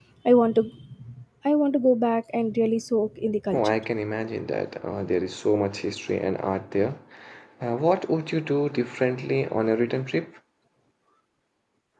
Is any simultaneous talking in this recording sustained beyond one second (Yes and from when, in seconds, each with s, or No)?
No